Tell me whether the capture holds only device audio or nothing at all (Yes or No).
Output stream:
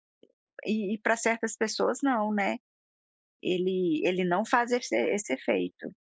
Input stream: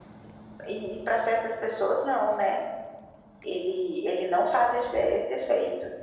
Yes